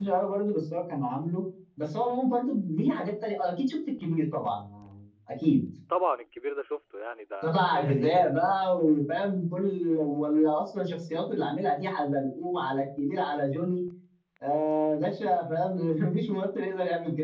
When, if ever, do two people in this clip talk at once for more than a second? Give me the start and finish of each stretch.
7.4-8.8

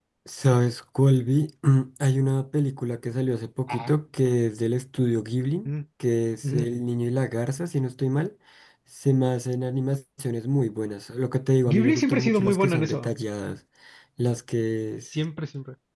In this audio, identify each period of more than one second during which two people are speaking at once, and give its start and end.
11.7-13.1

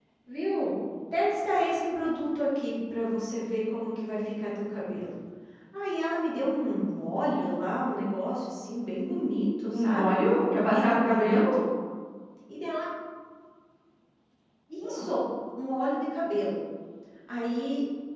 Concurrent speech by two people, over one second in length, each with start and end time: 9.7-11.6

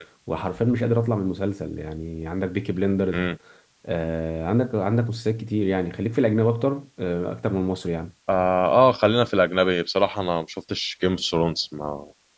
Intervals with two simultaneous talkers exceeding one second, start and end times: none

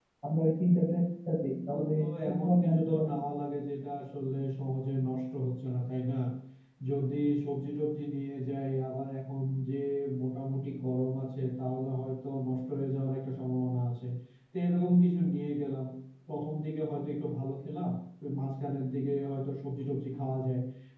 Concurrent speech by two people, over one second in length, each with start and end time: 1.7-3.1

